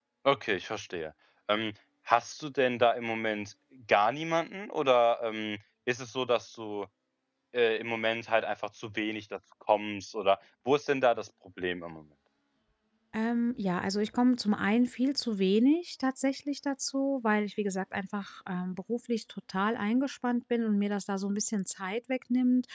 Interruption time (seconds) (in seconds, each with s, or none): none